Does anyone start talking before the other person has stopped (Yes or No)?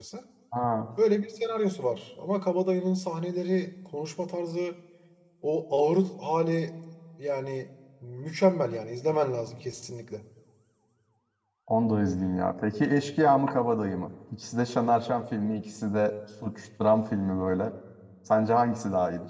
No